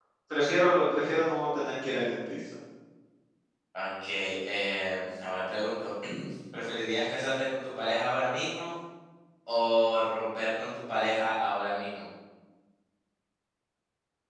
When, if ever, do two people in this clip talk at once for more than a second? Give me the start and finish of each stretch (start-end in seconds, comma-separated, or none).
none